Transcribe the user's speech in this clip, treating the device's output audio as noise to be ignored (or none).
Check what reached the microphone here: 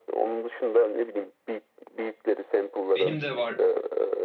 Benim de var.